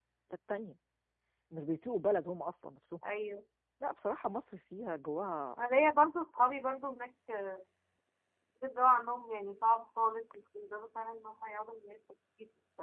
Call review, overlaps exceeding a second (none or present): none